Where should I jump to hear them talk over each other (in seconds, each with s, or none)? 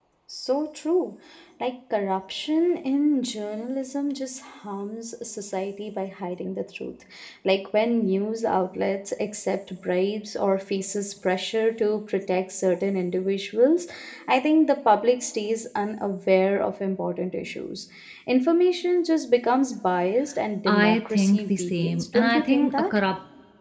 20.7 s